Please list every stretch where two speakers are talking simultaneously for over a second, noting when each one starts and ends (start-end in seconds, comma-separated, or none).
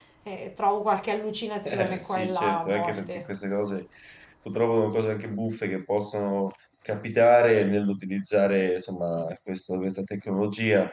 1.6-3.3